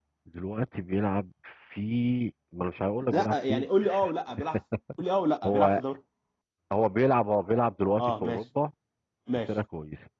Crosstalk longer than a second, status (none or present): none